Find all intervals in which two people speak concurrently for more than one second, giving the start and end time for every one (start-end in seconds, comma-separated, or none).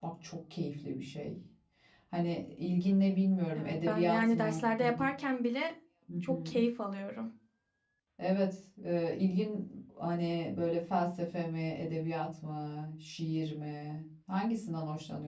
3.5-5.1